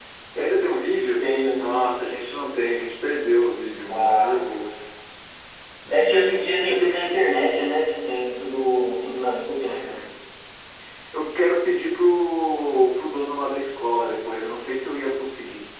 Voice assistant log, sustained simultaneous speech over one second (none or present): none